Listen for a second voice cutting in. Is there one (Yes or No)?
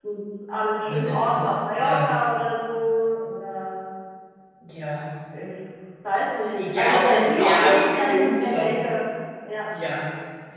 Yes